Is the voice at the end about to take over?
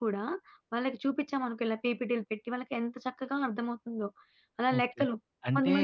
Yes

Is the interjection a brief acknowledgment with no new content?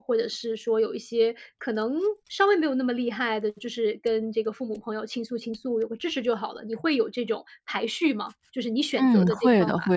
No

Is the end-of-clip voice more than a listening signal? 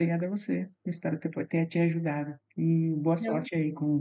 No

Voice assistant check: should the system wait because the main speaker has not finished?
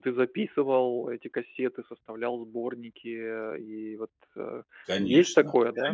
No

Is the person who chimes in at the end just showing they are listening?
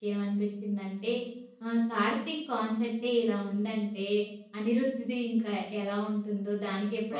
No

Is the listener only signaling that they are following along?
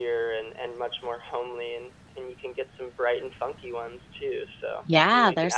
No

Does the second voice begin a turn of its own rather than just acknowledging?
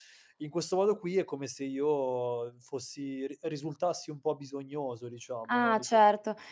Yes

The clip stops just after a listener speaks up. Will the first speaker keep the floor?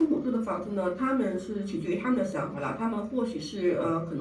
Yes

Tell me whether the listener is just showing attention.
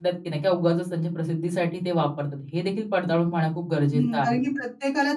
No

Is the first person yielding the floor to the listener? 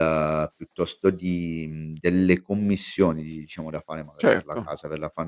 No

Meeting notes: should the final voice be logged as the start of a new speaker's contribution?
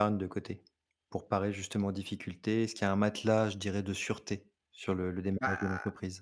Yes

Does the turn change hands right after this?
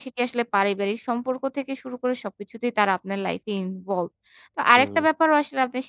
No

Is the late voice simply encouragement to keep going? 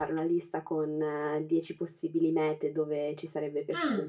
Yes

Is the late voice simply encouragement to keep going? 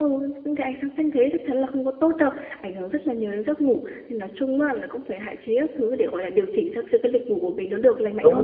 No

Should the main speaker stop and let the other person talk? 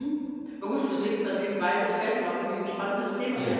No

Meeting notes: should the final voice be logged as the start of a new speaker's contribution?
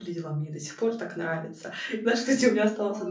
No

